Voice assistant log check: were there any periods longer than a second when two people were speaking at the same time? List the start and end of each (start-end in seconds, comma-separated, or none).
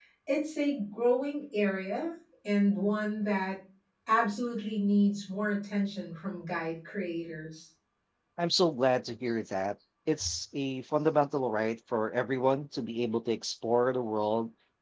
none